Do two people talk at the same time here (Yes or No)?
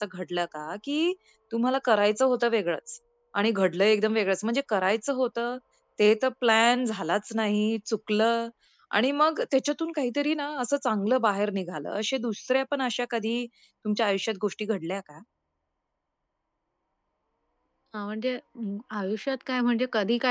No